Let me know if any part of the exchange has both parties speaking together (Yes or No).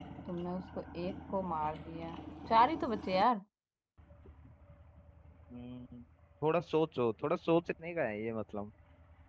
No